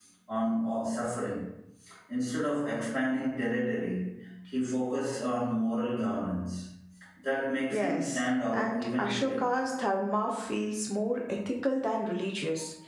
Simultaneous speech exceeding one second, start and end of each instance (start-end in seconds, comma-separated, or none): 7.7-9.4